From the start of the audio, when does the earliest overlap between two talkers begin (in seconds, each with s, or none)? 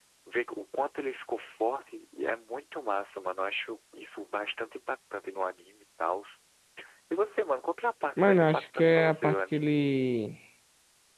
8.2 s